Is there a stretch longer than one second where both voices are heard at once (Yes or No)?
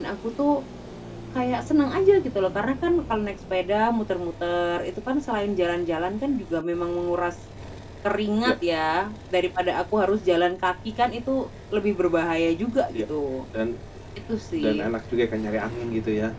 No